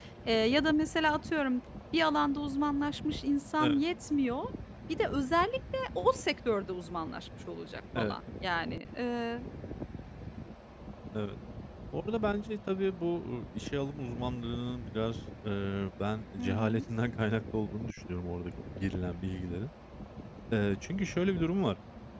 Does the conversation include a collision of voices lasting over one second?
No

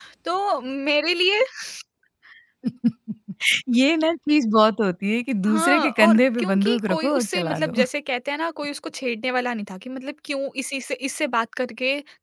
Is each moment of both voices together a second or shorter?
No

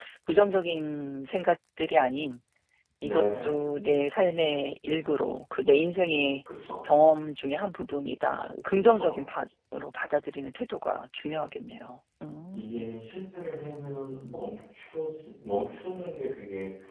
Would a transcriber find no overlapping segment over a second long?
Yes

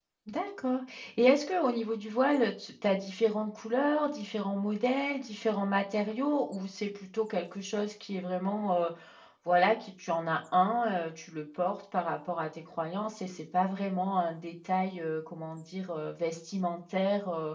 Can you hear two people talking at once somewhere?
No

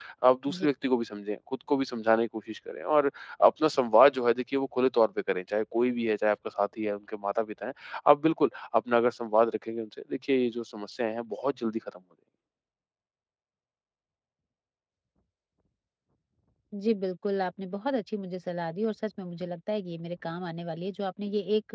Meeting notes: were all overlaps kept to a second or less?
Yes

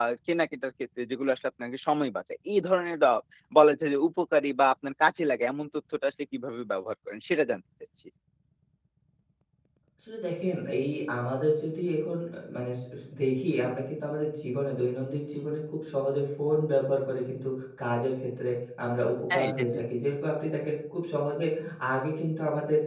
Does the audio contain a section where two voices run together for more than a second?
No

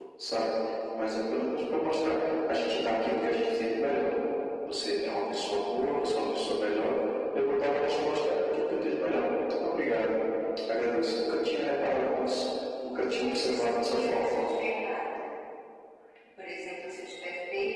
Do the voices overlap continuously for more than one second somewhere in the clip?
Yes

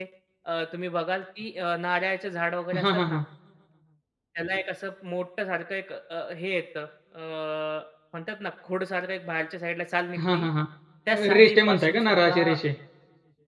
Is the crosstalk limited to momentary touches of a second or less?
No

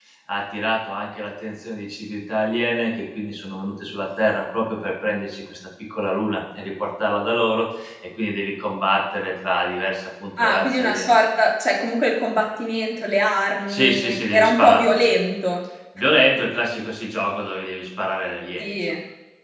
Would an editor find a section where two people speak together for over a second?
Yes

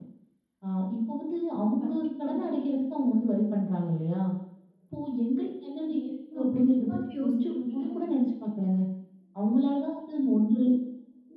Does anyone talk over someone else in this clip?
Yes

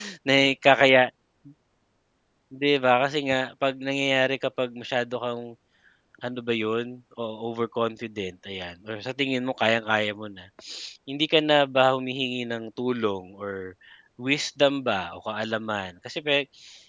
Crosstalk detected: No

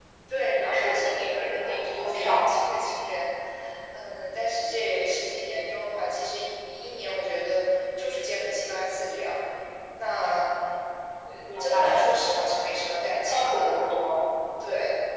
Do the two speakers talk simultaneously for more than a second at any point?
Yes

